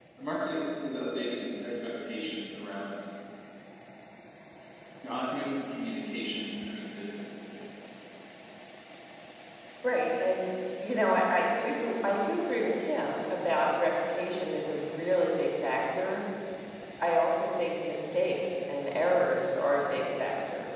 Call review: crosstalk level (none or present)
none